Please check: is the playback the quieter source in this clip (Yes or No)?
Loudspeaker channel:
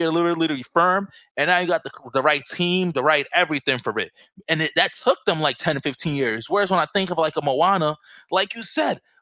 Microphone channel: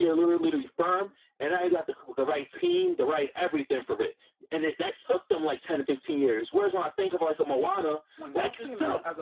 No